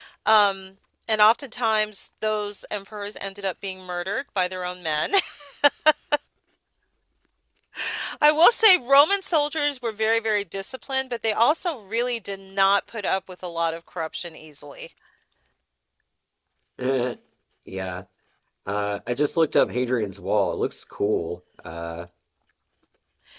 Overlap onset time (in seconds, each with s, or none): none